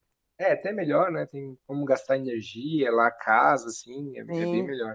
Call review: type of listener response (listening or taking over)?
taking over